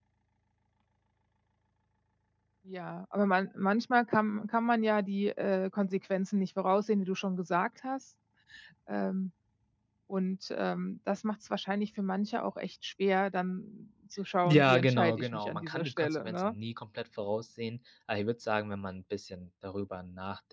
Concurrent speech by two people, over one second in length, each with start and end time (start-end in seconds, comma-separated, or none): 14.4-16.6